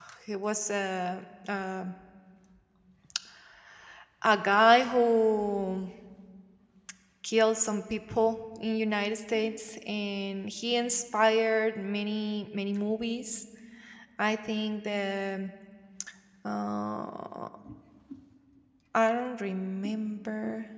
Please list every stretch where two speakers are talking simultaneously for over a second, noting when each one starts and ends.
none

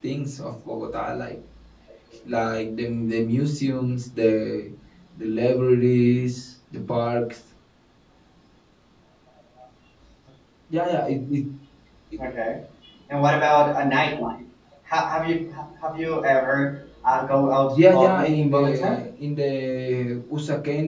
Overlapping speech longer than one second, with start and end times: 17.7-19.0

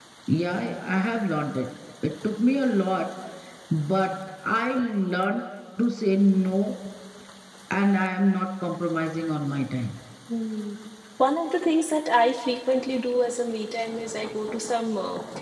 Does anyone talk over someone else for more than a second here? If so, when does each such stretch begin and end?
none

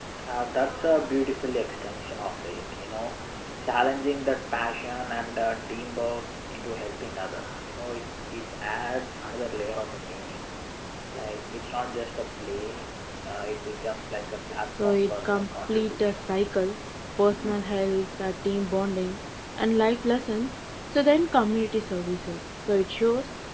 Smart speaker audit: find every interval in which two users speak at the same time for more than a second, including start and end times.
14.8-16.2

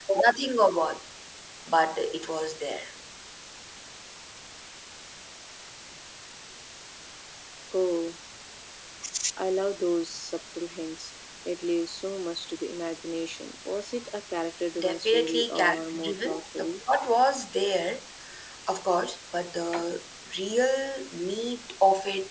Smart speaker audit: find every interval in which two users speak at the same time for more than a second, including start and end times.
14.8-16.7

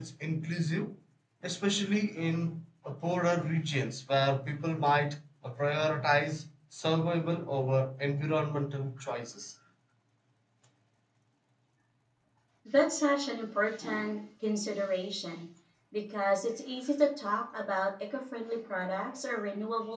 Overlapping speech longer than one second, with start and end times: none

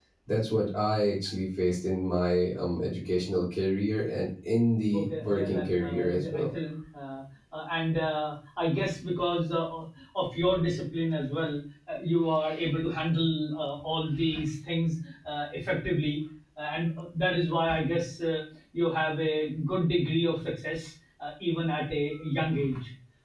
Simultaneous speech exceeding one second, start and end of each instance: 4.9-6.4

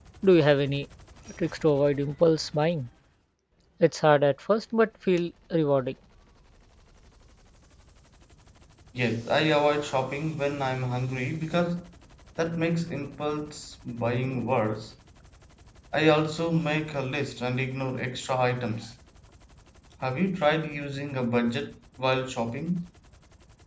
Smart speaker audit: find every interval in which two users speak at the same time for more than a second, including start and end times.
none

